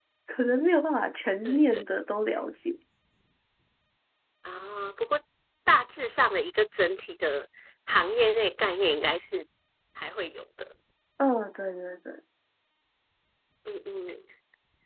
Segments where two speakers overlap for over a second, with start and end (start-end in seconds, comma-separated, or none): none